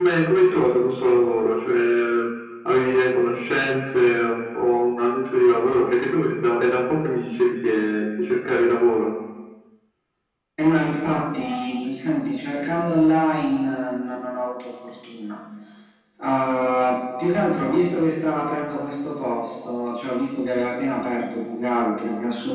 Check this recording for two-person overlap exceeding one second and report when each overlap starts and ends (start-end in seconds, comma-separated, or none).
none